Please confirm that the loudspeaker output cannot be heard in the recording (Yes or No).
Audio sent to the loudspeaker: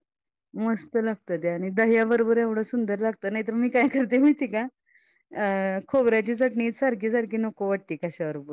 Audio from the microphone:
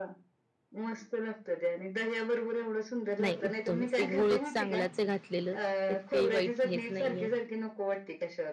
No